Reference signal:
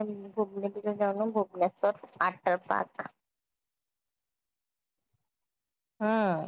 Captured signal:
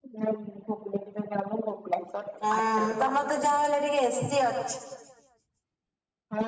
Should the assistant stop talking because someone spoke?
Yes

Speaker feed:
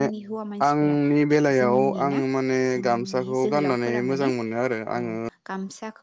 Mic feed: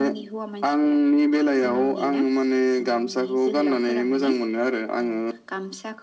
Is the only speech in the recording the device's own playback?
Yes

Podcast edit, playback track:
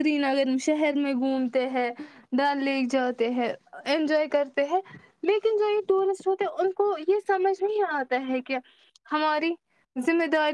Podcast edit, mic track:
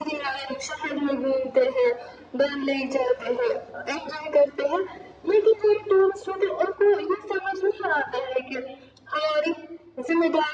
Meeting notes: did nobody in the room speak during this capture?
Yes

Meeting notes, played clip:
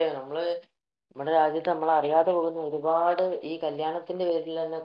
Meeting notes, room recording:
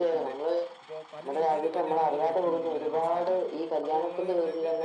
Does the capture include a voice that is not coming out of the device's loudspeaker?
Yes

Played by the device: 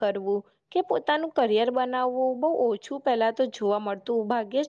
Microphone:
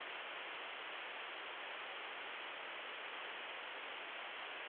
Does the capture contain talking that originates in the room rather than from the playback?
No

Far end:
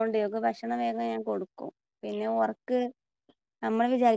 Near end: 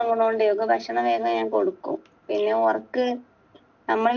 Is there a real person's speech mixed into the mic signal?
No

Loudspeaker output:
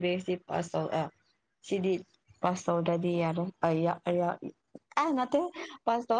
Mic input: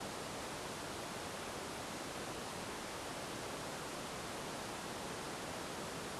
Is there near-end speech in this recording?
No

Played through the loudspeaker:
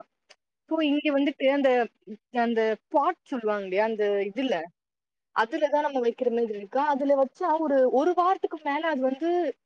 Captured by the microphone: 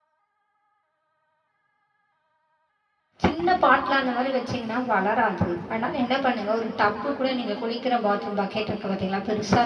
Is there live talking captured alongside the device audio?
Yes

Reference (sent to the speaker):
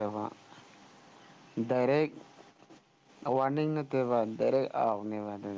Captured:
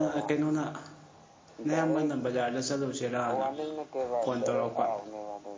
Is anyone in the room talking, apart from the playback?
Yes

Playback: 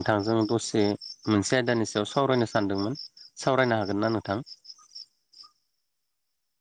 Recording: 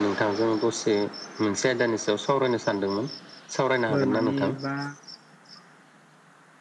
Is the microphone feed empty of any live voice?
No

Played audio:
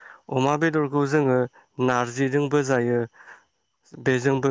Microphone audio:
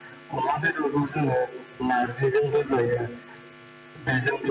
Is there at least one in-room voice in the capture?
No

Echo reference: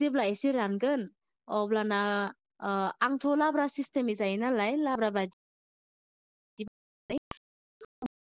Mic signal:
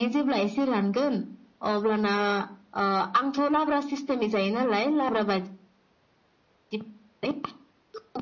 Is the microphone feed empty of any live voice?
Yes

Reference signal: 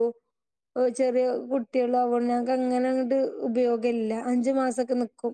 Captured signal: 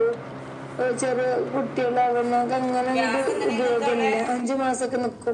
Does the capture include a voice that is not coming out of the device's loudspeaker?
Yes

